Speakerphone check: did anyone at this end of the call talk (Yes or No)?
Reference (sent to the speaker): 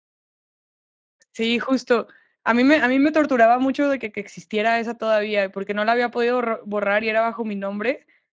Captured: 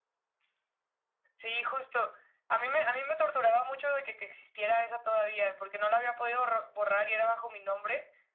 No